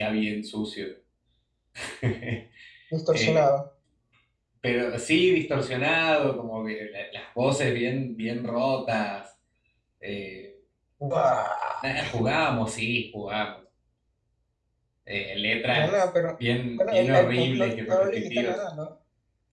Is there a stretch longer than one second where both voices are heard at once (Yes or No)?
Yes